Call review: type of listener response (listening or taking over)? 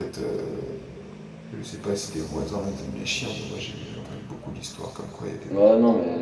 taking over